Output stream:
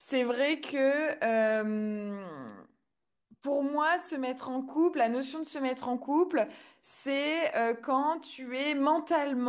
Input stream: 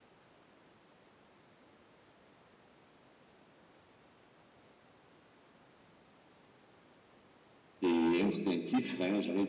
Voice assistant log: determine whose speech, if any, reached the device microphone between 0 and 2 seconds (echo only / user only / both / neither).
neither